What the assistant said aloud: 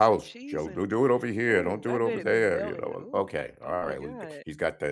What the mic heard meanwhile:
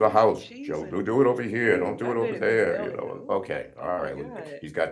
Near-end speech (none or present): none